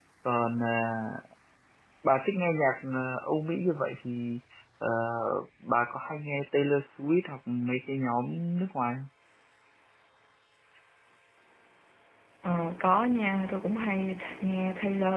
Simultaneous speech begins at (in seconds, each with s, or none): none